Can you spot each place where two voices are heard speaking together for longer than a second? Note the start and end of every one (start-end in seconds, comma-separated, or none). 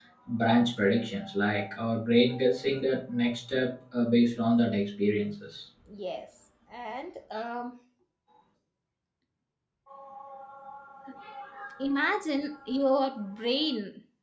none